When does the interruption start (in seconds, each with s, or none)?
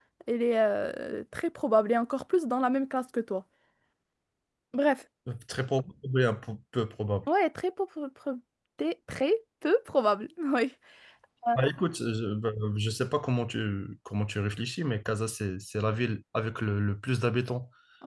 none